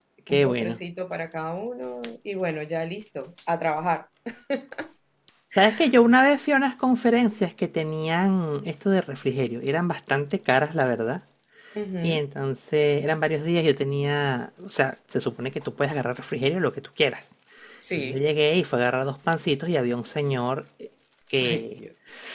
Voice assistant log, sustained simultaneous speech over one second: none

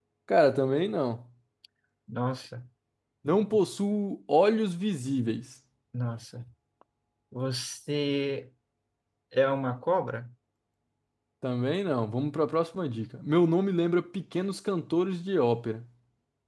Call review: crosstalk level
none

